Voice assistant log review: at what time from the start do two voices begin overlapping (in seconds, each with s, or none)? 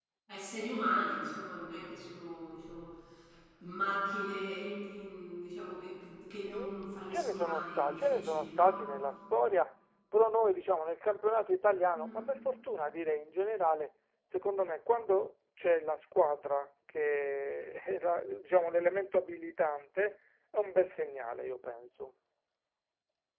6.5 s